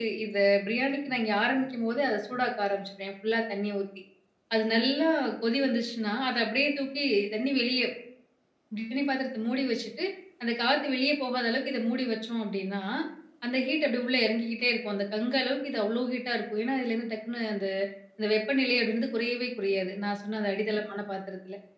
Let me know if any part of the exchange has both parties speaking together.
No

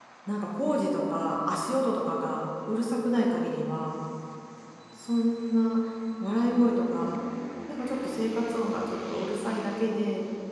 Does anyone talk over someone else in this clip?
No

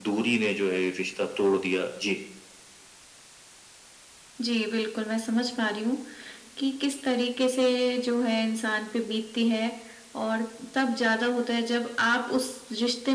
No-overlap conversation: Yes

